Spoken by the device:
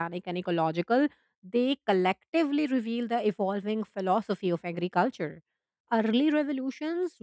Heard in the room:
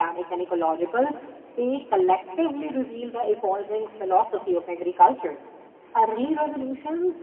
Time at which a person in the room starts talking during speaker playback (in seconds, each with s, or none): none